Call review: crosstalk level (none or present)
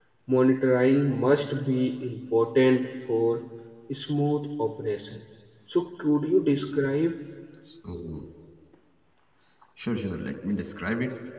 none